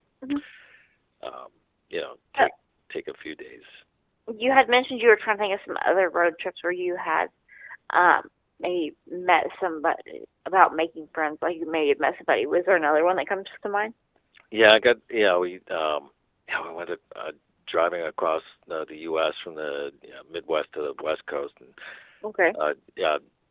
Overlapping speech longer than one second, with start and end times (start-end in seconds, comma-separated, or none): none